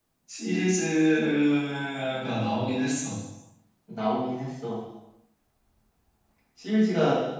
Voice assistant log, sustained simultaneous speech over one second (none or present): none